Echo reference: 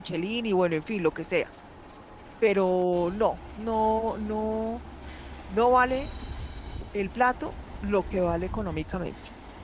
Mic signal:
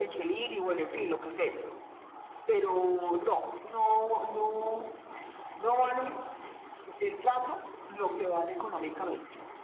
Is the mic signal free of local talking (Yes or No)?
Yes